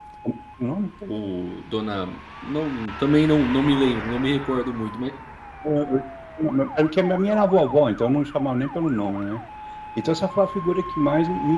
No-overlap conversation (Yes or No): Yes